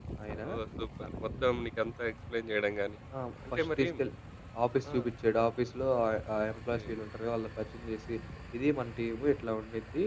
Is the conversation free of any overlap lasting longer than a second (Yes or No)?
Yes